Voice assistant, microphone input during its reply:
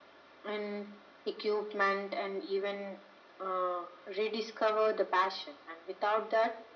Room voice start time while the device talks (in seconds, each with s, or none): none